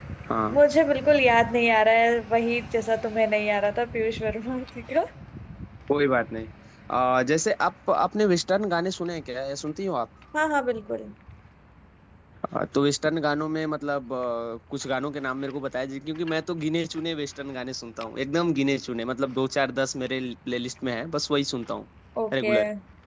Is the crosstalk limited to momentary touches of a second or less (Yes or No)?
Yes